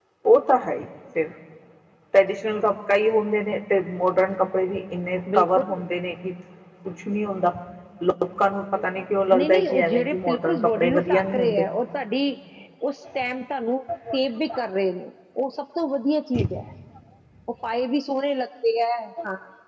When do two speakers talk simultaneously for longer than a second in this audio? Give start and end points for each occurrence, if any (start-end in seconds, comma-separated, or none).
9.4-11.7